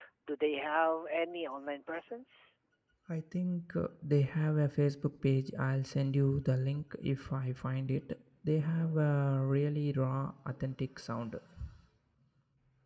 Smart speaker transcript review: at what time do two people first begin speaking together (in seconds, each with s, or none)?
none